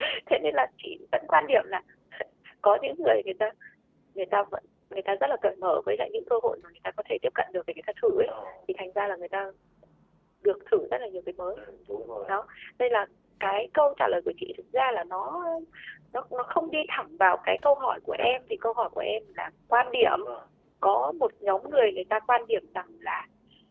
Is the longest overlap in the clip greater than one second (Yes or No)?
No